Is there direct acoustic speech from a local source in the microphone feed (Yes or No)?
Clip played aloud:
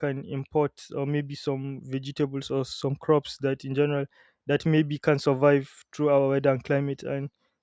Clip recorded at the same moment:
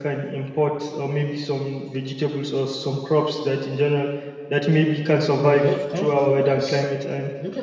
Yes